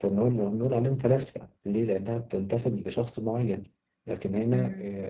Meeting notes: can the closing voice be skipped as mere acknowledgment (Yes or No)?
Yes